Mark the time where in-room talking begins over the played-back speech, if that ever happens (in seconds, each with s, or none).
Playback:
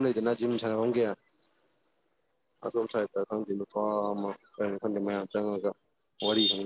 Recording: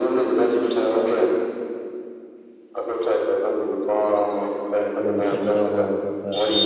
5.0 s